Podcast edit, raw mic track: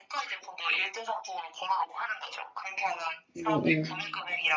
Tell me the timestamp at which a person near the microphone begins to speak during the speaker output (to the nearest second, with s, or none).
3 s